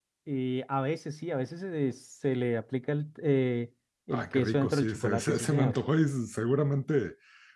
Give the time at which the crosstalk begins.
4.1 s

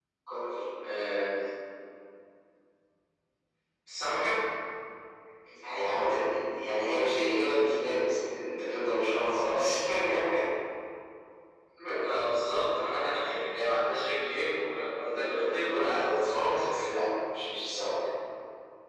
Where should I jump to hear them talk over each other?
15.0 s

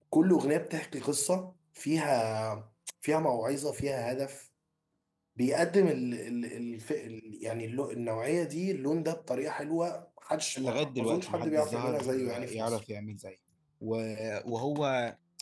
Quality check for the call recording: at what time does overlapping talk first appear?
10.6 s

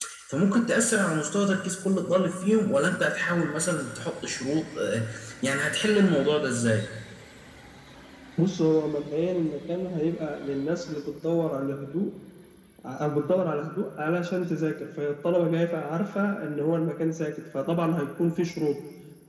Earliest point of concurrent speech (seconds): none

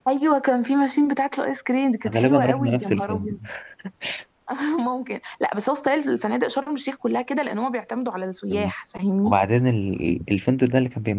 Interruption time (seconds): 2.0 s

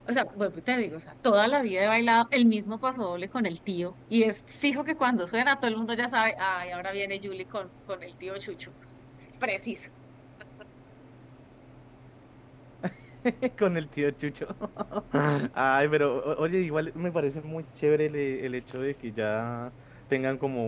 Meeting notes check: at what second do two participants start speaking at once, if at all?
none

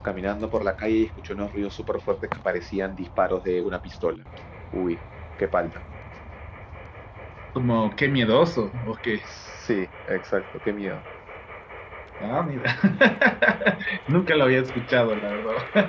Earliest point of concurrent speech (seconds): none

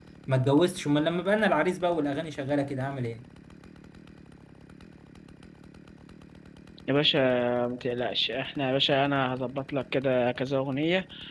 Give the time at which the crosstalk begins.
none

